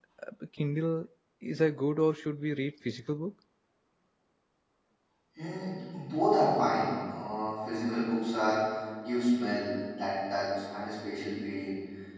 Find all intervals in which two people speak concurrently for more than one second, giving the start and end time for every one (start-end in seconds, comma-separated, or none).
none